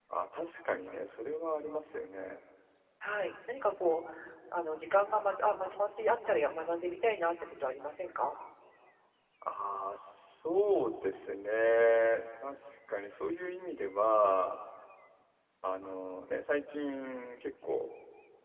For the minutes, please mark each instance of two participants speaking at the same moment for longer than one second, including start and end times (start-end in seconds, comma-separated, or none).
none